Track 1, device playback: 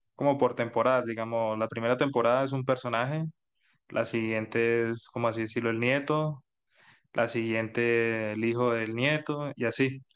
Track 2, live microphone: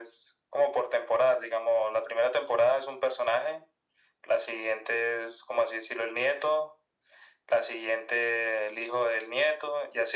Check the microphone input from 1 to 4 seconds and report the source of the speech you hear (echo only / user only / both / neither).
echo only